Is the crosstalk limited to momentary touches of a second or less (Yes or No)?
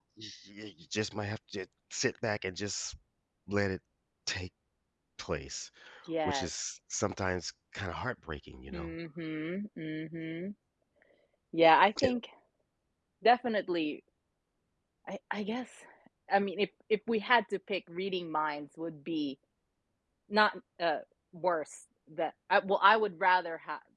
Yes